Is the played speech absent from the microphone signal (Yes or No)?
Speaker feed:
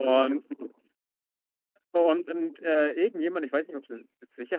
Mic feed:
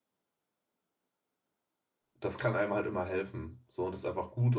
Yes